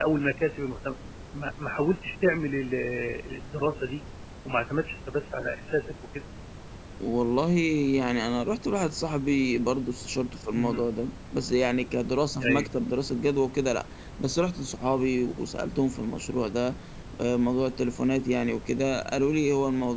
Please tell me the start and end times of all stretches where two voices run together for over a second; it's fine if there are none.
none

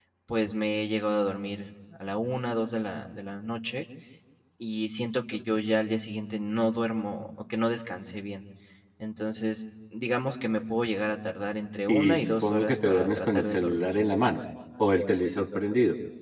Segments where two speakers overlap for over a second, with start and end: 11.9-13.9

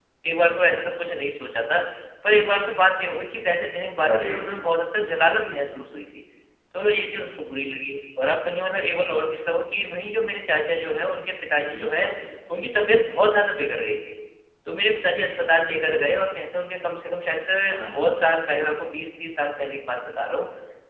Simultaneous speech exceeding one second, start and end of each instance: none

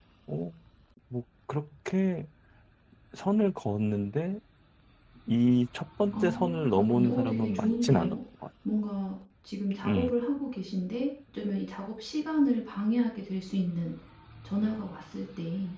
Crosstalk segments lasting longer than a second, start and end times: 6.1-8.2

